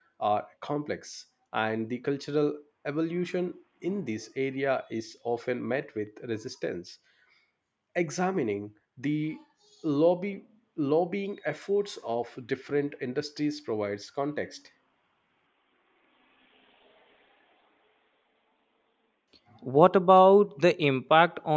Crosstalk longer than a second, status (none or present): none